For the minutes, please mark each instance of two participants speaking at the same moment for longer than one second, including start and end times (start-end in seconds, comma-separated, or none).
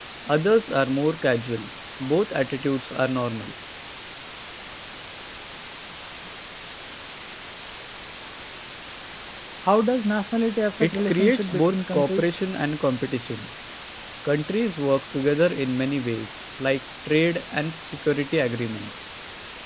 10.8-12.4